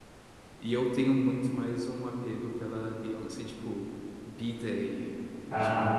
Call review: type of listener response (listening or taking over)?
listening